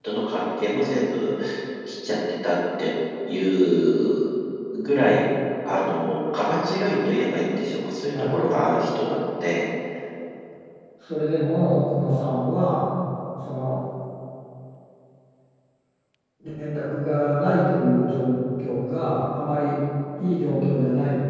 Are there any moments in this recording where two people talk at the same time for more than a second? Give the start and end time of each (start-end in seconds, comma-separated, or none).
none